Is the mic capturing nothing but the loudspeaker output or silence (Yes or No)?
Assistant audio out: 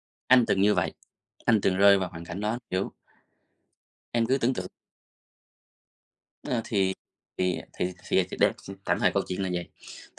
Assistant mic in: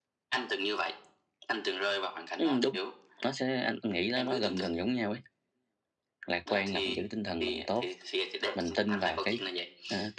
No